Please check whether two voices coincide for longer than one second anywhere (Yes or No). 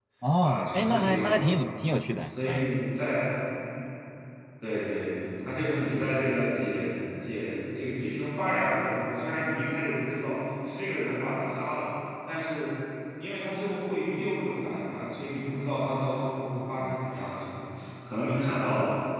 Yes